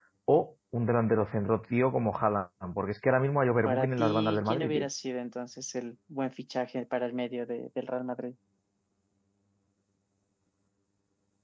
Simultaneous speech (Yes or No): Yes